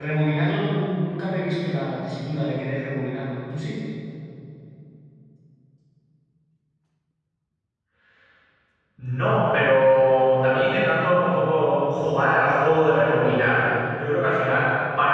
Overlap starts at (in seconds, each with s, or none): none